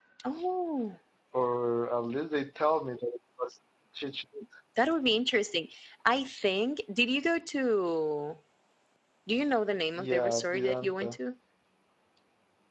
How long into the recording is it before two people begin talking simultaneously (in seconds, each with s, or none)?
10.0 s